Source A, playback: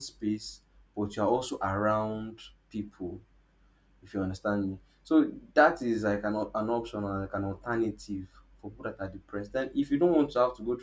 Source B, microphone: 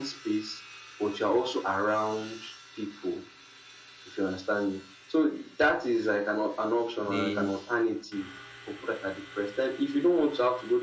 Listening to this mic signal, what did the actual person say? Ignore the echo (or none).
they